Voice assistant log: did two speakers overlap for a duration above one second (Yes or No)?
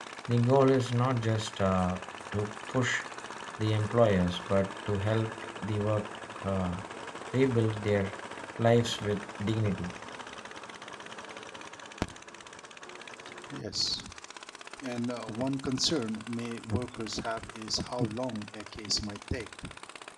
No